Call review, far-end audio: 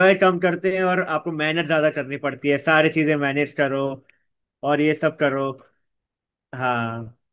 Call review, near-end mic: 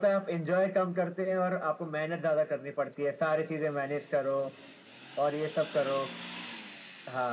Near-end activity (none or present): none